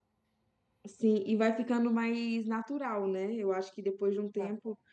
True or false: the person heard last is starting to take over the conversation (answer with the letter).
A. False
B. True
A